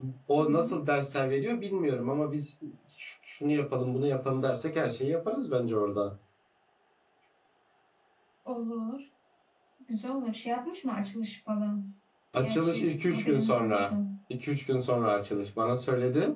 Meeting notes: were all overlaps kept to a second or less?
No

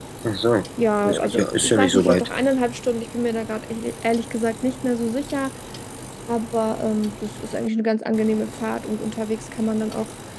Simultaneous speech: Yes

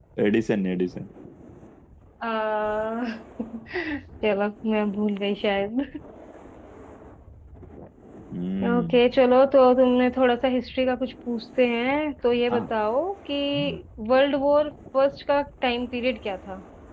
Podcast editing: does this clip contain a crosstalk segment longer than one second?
No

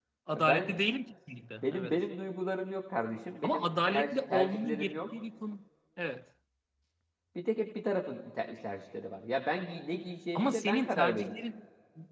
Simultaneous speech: Yes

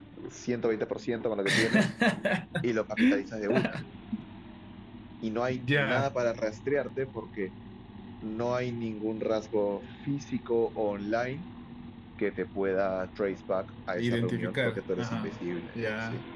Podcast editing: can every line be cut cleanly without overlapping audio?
No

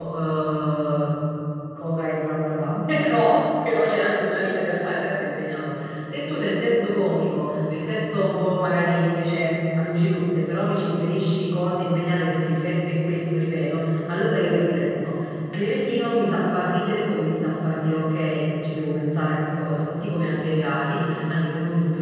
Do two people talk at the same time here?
No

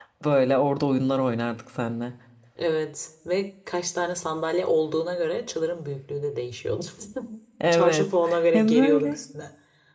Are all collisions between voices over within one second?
No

